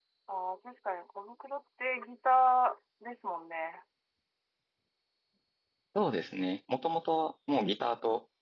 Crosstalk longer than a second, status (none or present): none